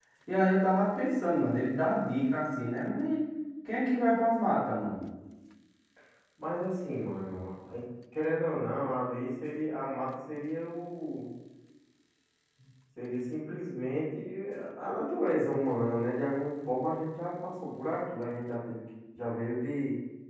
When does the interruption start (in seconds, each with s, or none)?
none